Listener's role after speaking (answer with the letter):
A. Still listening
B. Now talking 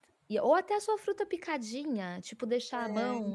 A